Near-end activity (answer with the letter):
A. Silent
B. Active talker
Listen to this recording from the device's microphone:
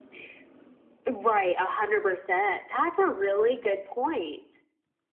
A